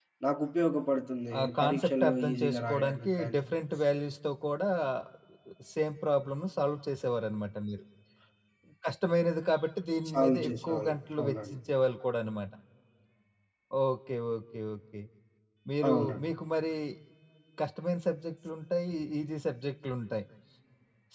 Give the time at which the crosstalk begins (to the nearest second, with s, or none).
1 s